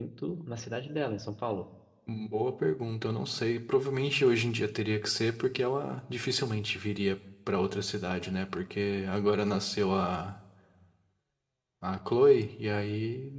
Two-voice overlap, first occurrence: none

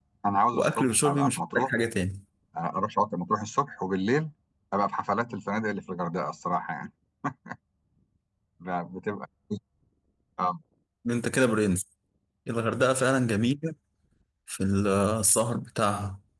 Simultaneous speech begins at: 0.5 s

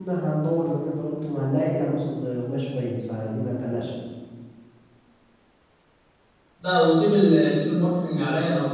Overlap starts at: none

